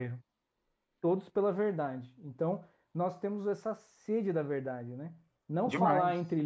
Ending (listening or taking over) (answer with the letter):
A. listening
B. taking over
A